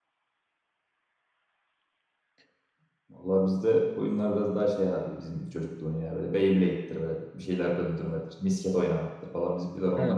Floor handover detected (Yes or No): Yes